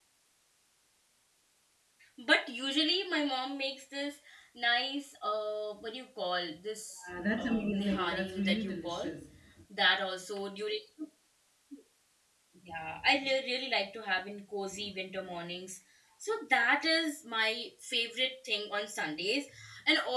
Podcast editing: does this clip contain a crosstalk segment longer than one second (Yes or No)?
Yes